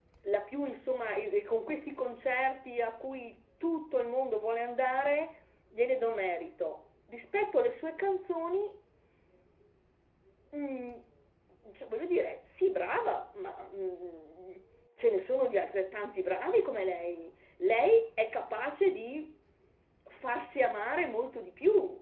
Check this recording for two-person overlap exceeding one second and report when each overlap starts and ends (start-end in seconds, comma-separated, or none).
none